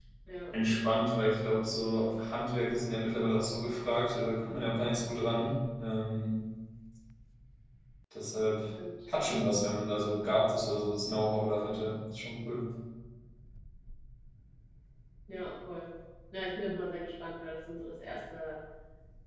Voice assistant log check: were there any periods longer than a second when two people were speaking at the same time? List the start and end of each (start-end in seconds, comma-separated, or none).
none